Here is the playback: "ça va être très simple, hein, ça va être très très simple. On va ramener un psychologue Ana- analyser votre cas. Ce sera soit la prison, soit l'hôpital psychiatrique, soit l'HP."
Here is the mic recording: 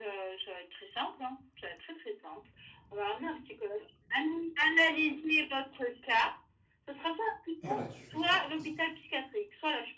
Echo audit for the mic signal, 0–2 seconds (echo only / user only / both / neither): echo only